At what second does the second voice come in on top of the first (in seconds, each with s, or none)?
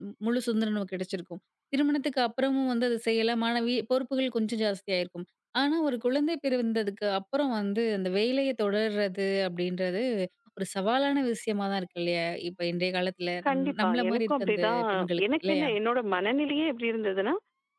13.4 s